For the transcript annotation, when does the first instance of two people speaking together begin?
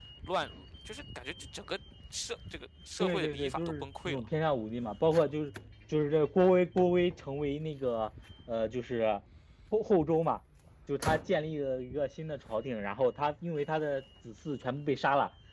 3.0 s

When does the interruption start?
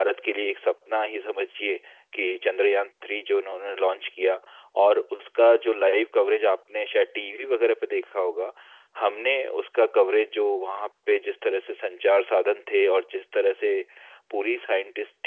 none

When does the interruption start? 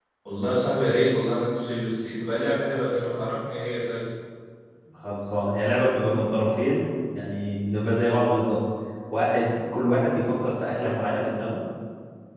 none

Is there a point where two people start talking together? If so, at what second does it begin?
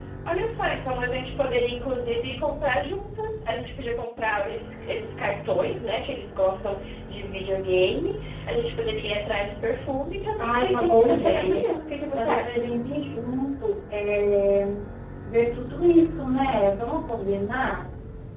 10.4 s

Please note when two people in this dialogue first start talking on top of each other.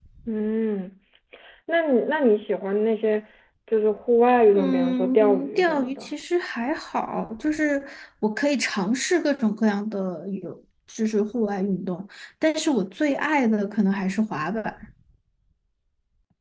4.5 s

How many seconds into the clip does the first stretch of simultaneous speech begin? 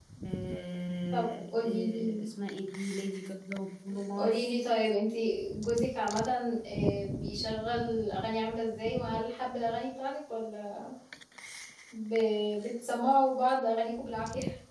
1.1 s

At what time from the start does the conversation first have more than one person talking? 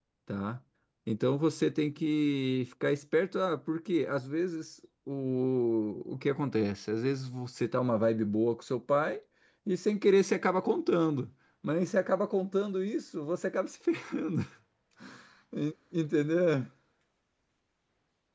none

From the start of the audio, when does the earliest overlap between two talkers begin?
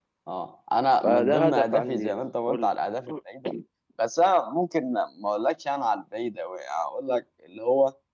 1.0 s

